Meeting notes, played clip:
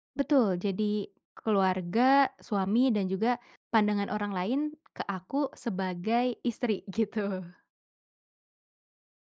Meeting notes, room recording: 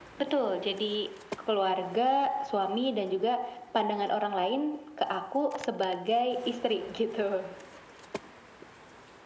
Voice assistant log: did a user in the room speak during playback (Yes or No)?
No